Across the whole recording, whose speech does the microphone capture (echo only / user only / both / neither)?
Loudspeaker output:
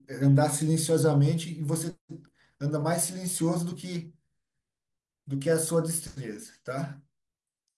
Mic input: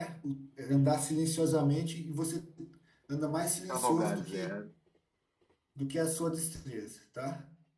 both